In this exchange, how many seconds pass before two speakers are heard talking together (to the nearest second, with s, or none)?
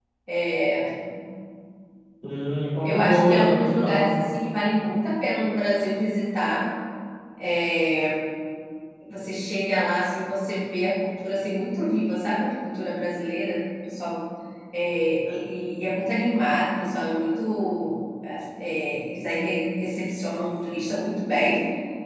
3 s